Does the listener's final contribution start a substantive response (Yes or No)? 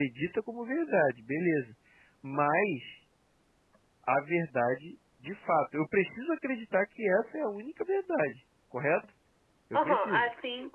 Yes